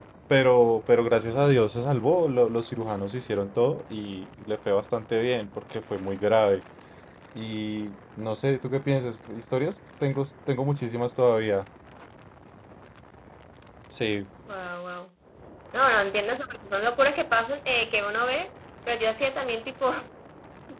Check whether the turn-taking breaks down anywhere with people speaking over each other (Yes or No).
No